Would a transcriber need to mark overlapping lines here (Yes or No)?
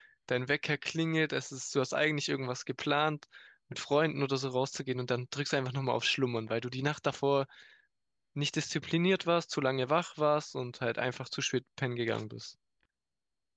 No